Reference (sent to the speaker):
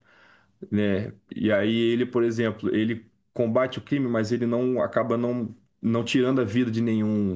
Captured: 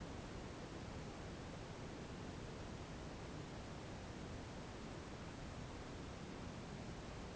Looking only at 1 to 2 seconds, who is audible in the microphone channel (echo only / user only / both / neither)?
neither